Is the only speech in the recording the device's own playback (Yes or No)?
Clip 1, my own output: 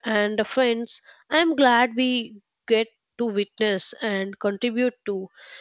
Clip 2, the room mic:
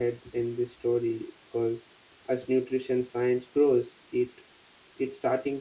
No